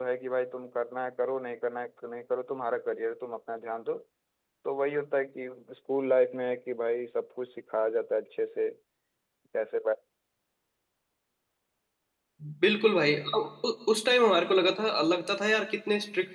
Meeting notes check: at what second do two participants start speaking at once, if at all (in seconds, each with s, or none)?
none